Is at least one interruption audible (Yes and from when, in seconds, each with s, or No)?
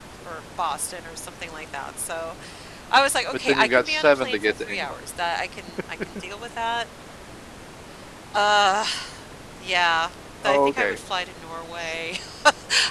Yes, from 3.5 s